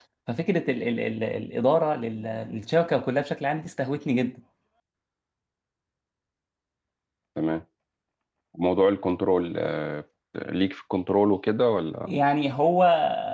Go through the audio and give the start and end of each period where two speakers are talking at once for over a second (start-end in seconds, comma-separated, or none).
none